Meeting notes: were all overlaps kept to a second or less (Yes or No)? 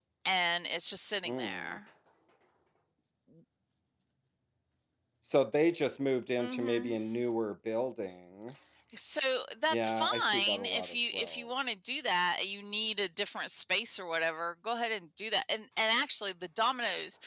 No